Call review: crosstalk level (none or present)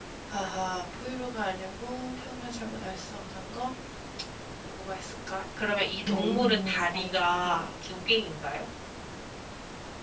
present